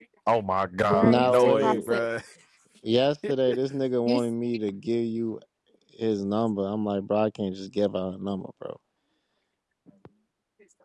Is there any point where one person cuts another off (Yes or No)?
Yes